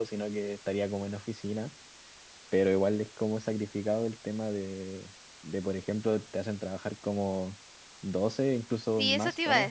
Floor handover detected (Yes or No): Yes